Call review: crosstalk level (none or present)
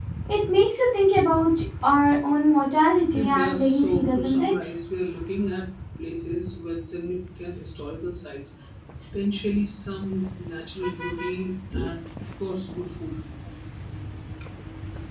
present